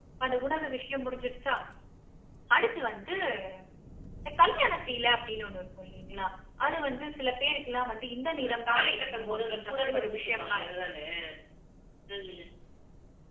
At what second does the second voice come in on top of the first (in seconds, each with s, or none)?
8.4 s